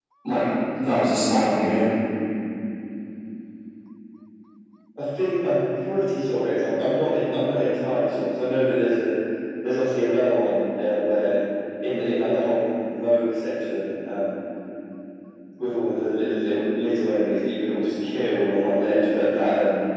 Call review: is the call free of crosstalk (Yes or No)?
Yes